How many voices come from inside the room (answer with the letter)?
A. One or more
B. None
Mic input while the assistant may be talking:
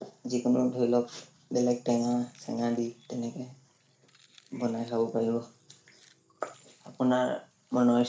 A